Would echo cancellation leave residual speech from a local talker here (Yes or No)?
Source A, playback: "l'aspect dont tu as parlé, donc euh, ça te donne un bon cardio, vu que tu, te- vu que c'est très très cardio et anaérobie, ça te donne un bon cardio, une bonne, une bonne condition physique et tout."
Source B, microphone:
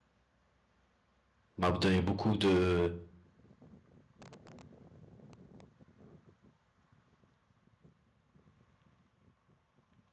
Yes